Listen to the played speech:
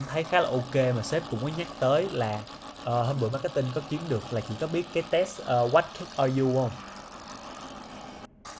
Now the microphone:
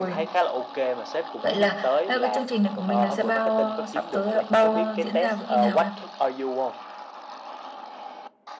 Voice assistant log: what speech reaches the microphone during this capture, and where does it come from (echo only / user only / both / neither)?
both